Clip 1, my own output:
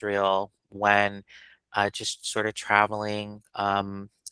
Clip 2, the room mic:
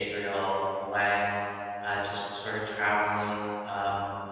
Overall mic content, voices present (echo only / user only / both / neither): echo only